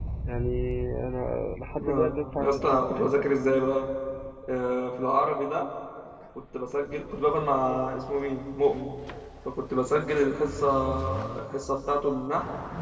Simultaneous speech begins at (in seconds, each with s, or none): 1.8 s